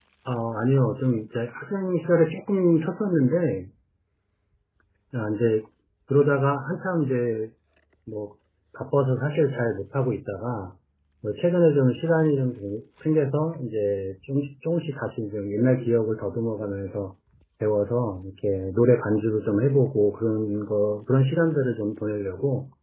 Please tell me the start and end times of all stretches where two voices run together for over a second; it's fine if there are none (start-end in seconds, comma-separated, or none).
none